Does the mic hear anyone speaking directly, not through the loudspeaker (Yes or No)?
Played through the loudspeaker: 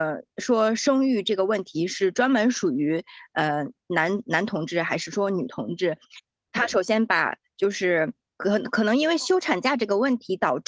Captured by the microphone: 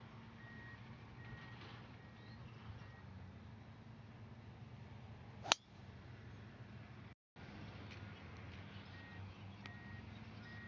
No